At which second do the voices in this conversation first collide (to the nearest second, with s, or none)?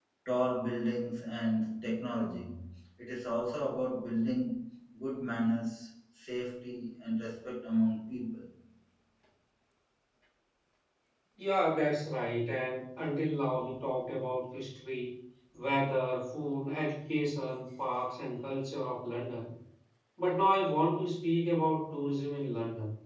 none